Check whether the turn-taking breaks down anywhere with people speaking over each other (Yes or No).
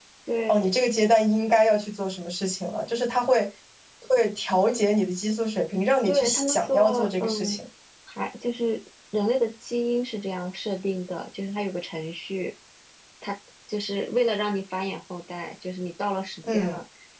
Yes